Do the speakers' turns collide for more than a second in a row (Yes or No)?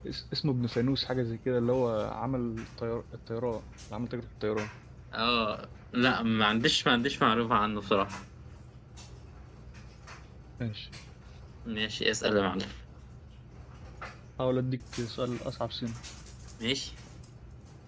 No